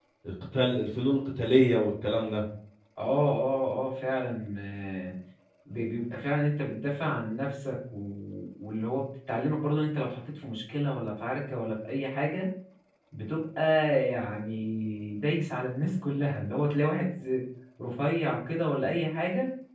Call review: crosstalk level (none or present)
none